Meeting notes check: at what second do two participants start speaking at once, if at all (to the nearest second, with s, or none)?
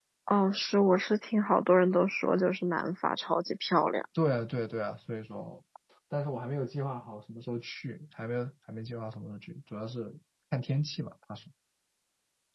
none